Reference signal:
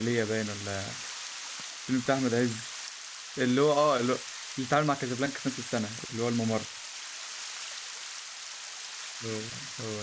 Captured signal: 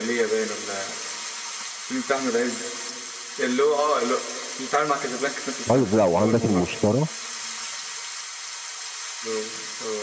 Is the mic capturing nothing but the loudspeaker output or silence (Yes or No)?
No